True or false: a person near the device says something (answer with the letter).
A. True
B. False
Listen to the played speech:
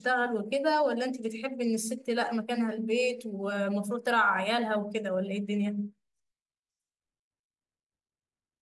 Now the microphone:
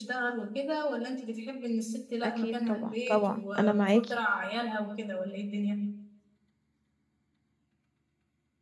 A